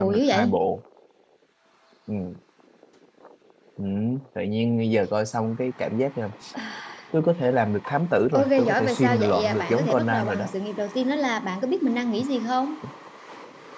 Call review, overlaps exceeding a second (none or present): present